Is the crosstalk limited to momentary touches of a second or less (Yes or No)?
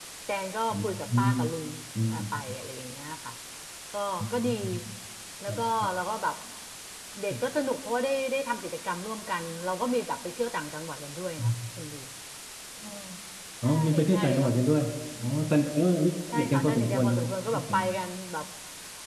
No